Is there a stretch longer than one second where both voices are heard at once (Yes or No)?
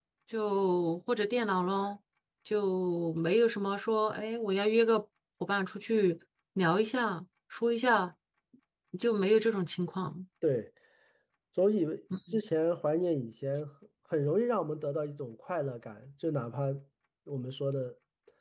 No